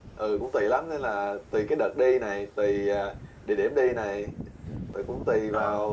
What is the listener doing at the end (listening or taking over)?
listening